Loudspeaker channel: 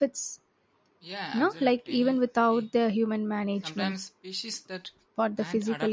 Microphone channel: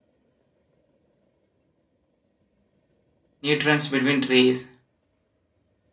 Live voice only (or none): nutrients between trees.